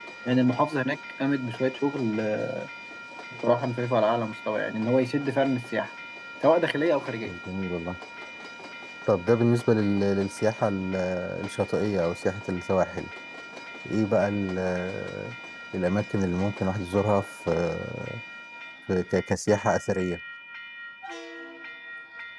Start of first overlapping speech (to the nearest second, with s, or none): none